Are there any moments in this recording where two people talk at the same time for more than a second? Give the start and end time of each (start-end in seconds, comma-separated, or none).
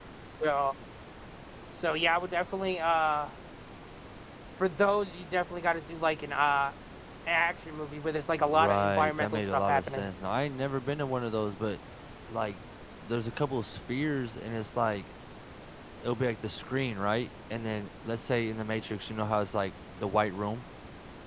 8.4-10.1